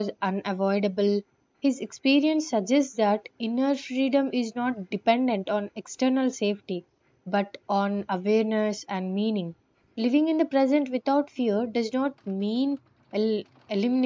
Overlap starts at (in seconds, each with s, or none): none